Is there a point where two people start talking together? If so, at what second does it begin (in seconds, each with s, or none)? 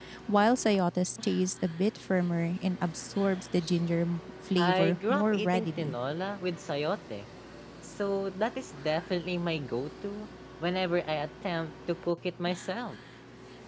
4.6 s